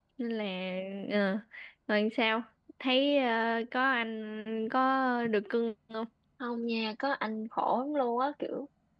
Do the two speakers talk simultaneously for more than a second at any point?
No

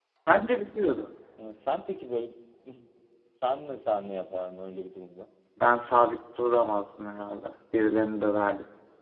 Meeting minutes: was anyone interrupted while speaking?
No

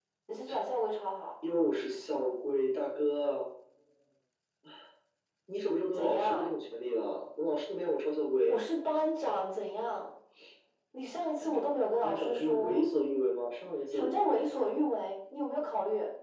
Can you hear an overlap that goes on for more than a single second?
Yes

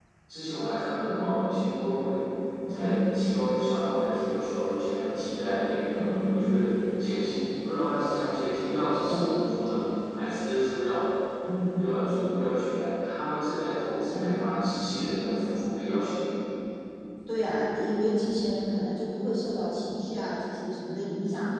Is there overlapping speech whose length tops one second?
No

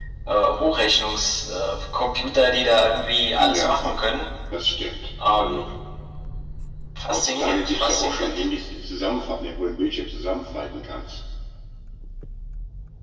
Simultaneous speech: Yes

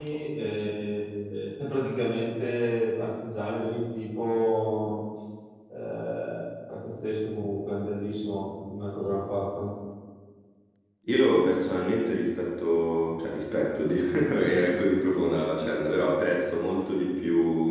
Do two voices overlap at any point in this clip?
No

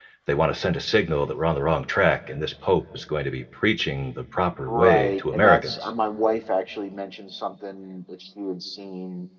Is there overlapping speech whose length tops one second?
Yes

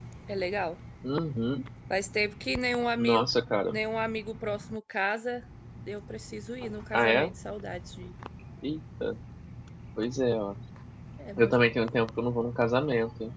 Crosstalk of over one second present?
No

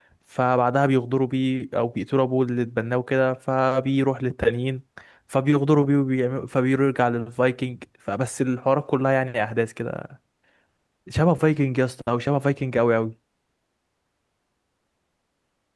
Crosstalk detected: No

